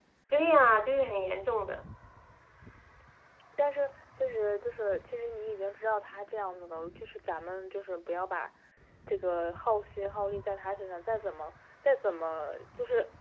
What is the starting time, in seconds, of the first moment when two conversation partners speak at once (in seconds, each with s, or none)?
none